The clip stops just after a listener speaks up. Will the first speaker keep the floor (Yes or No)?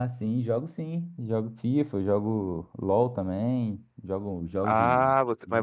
No